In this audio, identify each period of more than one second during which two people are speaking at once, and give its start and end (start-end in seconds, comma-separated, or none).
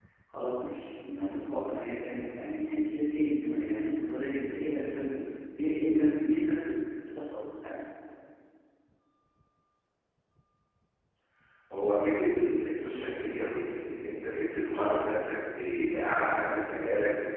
none